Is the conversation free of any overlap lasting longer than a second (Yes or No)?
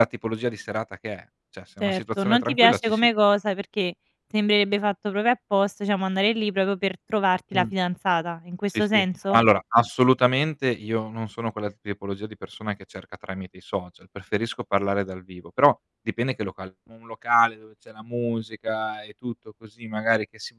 No